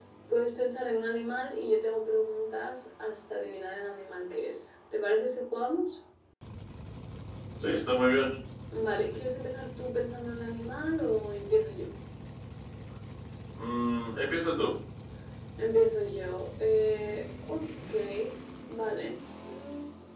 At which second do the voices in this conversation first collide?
none

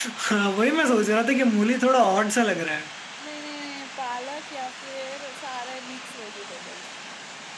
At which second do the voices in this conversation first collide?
none

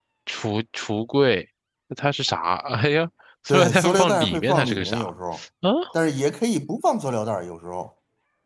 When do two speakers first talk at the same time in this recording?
3.5 s

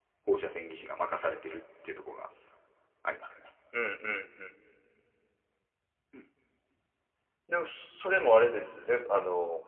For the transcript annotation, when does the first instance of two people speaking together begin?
none

